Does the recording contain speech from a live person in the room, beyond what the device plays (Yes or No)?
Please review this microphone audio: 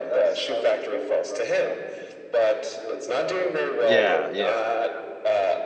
Yes